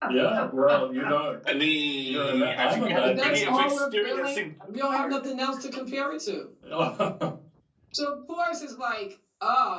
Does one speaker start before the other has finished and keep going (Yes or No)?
Yes